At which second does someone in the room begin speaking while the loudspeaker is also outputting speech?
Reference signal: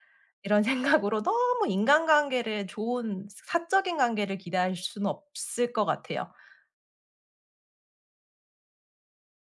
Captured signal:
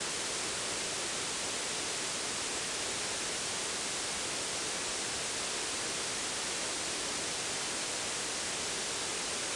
none

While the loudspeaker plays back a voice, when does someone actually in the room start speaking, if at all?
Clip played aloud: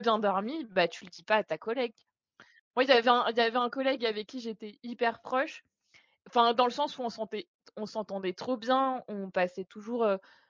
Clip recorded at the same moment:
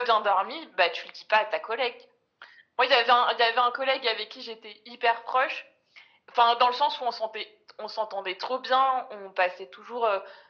none

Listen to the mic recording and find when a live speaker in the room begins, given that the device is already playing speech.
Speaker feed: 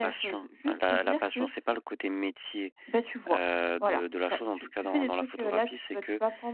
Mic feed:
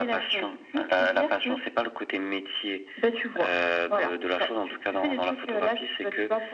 none

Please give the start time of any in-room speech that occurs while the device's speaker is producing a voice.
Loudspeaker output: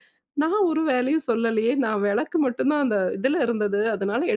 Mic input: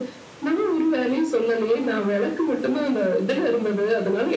none

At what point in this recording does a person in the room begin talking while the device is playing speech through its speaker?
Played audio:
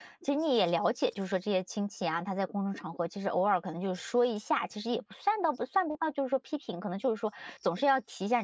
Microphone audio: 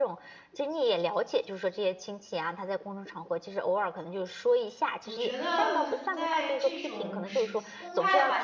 5.0 s

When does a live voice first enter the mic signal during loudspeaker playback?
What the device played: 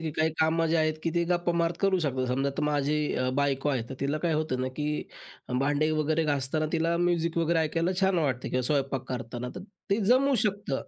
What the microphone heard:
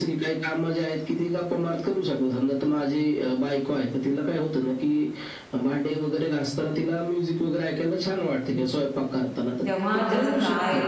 9.7 s

